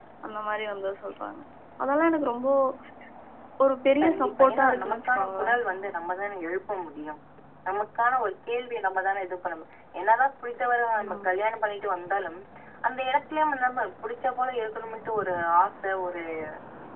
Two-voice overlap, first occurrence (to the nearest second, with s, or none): 4 s